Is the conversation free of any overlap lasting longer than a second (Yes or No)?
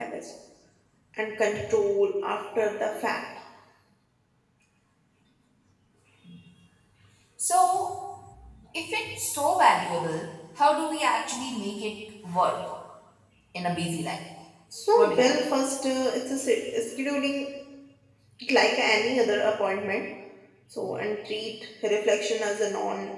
Yes